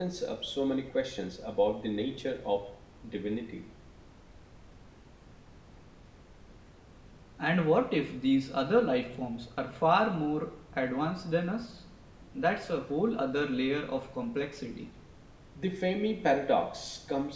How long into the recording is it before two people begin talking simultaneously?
none

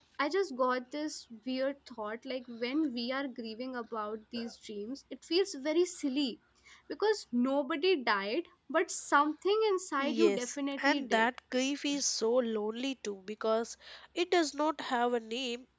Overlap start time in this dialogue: 10.0 s

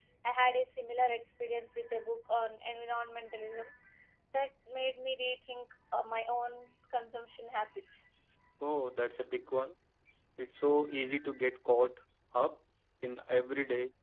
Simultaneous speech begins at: none

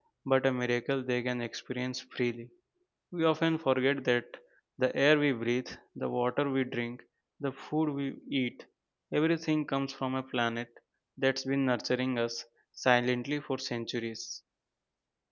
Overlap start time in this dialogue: none

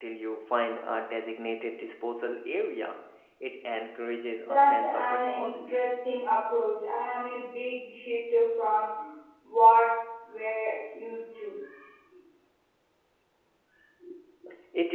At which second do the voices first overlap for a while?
4.4 s

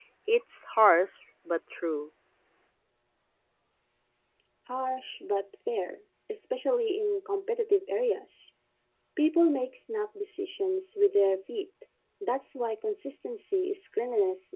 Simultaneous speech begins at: none

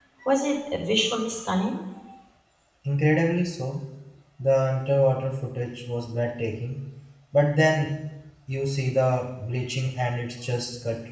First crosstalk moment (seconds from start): none

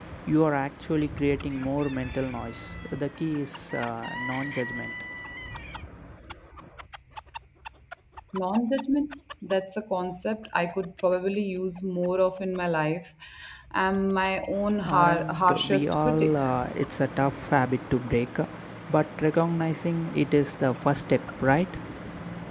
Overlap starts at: 14.8 s

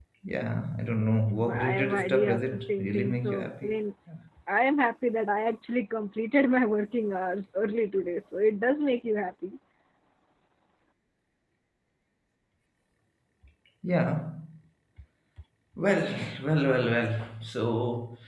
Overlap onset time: 1.4 s

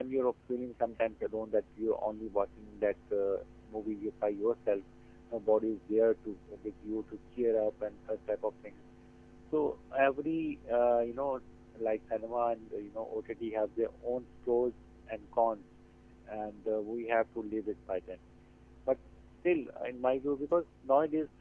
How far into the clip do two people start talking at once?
none

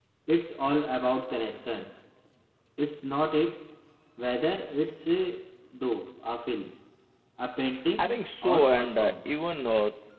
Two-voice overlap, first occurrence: 8.0 s

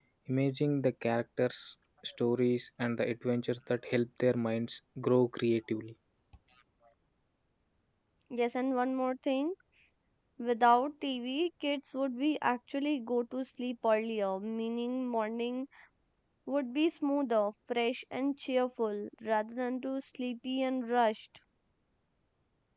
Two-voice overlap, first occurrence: none

